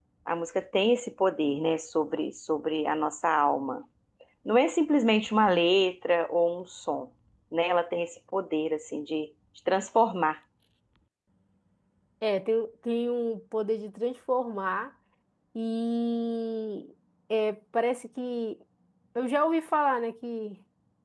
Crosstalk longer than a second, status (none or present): none